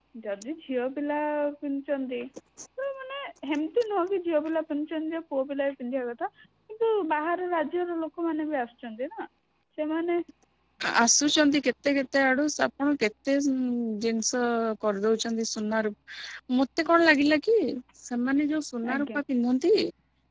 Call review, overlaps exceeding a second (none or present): none